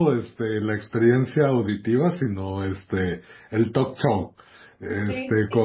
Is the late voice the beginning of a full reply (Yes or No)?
No